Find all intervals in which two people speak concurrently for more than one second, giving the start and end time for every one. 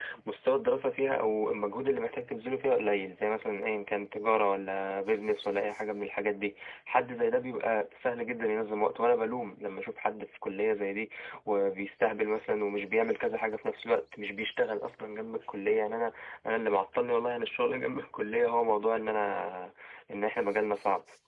none

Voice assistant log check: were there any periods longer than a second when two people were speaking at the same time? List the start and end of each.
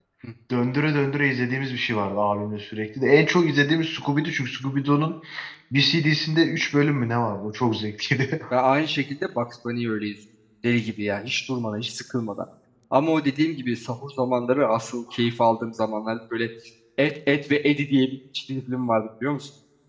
none

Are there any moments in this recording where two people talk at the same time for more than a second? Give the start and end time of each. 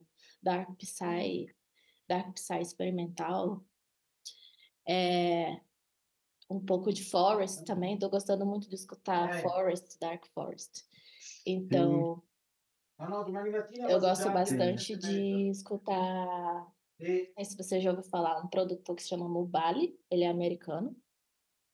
13.8-15.4

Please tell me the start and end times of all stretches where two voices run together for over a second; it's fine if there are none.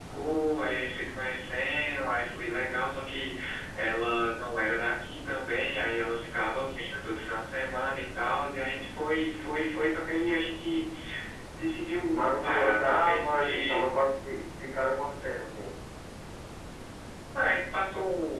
12.1-13.8

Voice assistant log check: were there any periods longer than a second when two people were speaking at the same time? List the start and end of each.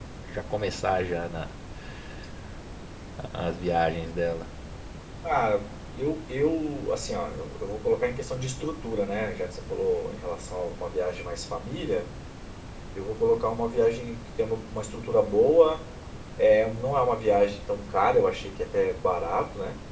none

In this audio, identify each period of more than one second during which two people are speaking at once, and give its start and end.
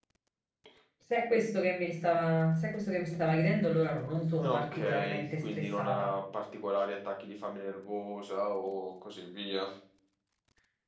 4.4-6.1

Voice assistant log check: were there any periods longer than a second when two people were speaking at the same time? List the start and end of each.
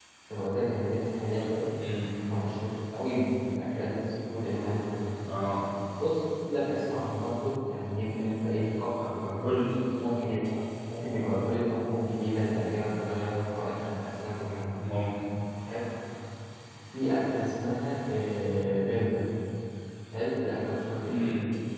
none

